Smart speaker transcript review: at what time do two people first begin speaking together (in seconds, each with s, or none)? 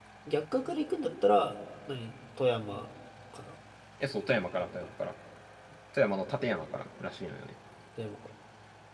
none